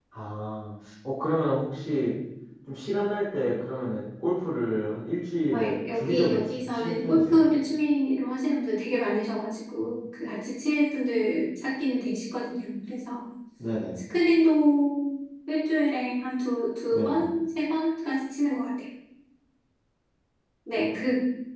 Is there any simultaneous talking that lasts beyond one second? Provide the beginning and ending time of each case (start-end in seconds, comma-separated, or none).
5.5-7.4